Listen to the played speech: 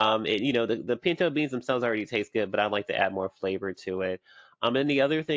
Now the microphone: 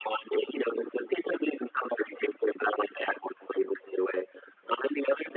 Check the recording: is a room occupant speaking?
No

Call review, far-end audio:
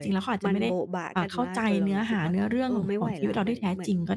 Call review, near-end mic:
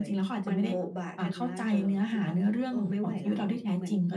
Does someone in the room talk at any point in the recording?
No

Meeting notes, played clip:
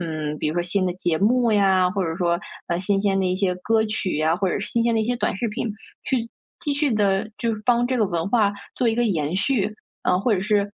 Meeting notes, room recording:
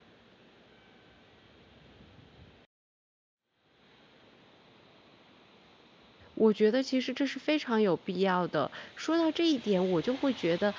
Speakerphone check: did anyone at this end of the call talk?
Yes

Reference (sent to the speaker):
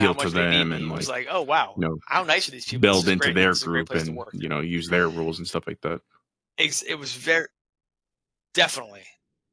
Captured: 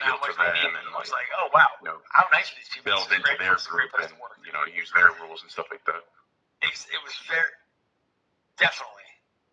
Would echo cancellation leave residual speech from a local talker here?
No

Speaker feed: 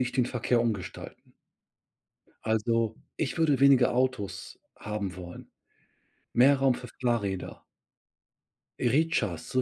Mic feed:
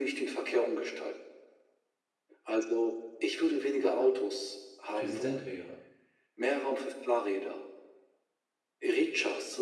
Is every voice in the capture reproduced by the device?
No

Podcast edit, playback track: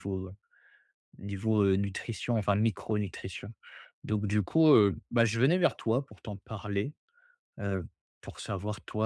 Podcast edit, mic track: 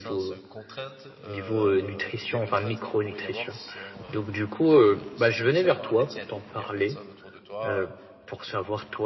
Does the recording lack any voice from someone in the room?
No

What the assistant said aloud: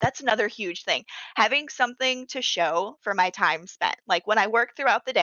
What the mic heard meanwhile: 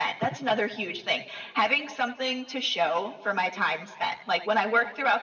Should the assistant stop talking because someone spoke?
No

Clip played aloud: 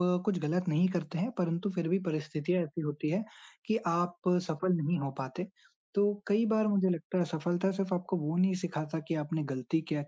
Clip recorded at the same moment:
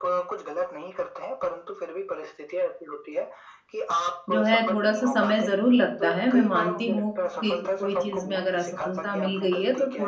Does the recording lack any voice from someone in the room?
No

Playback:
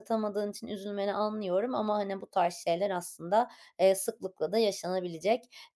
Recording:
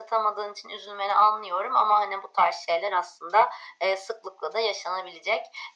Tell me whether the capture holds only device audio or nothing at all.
Yes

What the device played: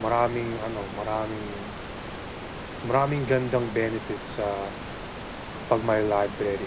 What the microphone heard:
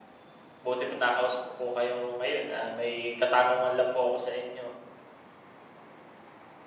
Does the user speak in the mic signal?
Yes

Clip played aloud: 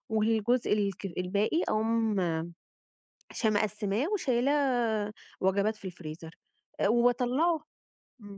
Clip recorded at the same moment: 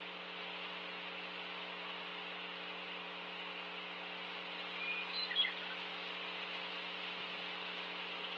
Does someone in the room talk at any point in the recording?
No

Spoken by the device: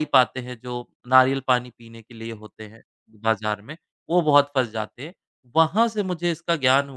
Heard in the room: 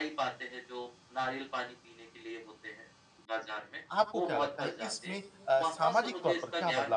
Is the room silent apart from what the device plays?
No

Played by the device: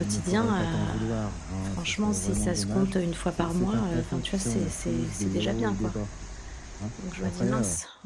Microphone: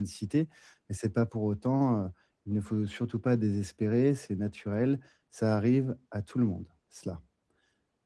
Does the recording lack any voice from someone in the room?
No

